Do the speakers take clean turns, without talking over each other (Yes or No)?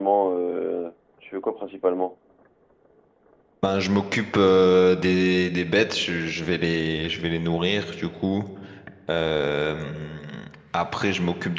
Yes